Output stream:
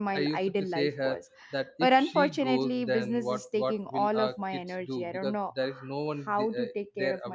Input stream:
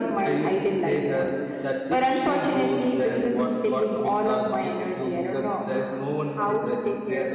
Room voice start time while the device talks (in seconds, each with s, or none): none